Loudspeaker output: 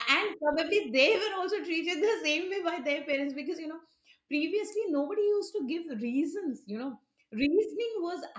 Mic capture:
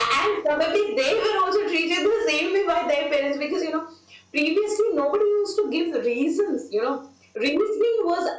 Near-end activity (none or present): none